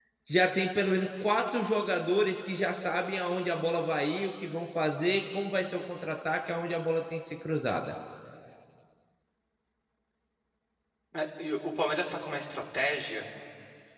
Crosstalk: none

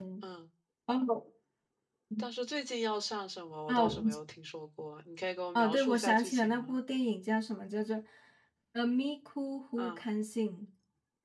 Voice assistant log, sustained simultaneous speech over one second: present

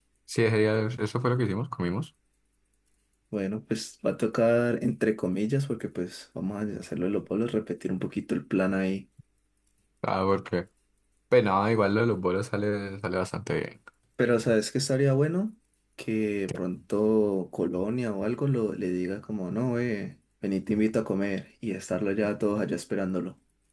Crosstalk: none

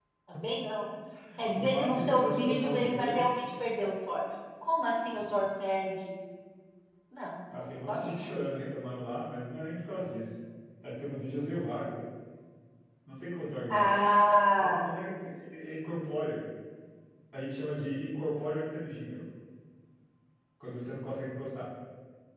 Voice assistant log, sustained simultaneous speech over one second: present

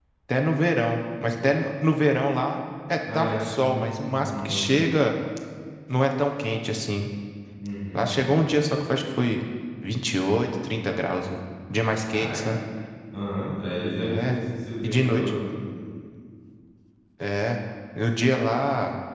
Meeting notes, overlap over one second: present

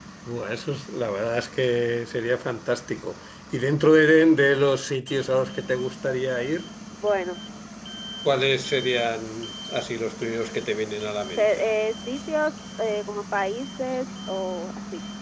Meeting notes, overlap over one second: none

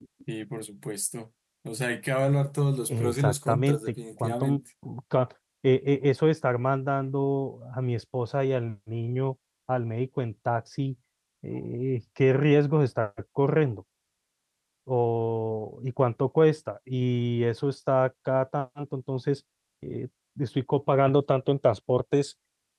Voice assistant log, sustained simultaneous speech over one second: present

